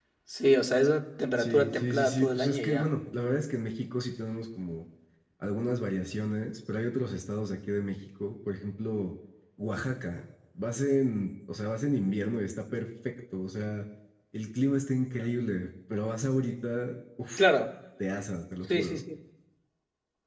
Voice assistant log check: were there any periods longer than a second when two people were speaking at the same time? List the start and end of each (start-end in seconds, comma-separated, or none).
1.4-2.9